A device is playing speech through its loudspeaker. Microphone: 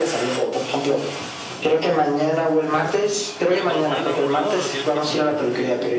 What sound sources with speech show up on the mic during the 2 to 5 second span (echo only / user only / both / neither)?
both